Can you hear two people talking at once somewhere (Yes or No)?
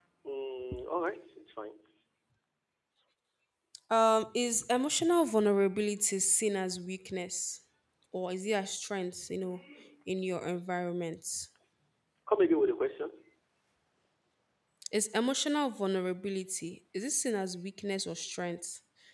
No